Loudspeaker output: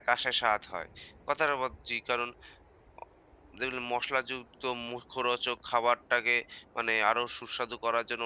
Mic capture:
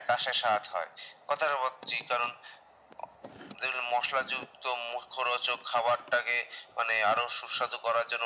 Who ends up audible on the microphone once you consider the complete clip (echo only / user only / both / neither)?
echo only